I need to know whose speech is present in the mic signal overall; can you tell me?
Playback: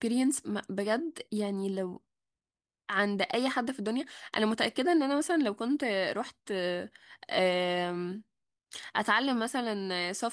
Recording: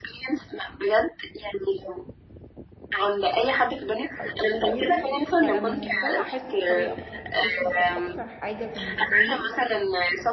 both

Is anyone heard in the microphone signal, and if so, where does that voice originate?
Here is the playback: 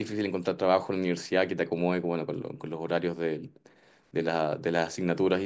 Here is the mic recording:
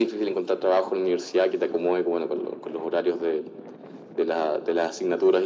echo only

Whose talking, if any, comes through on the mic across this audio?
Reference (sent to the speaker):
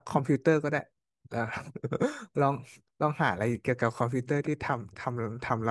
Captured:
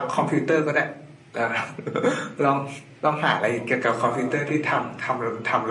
both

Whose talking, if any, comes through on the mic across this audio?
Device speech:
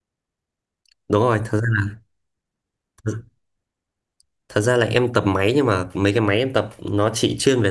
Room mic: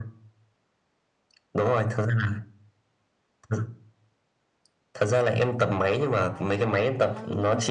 both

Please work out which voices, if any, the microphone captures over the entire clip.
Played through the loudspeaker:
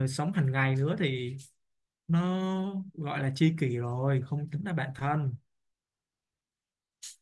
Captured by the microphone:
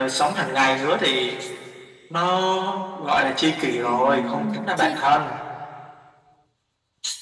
both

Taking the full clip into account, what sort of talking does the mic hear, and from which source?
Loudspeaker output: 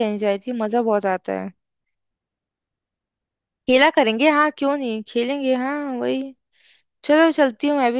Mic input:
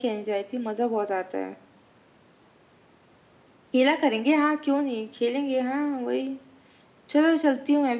echo only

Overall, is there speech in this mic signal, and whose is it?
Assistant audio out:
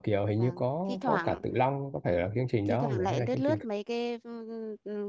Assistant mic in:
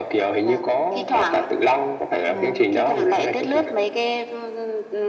both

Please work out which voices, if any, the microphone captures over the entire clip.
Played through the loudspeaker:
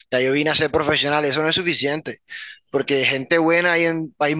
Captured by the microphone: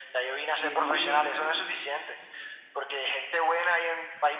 both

